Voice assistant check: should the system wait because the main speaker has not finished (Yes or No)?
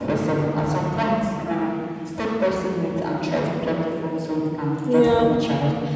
Yes